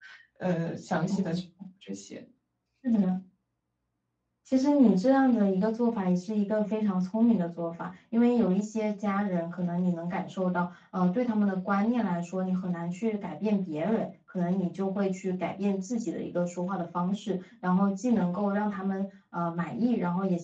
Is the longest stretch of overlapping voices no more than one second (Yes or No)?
Yes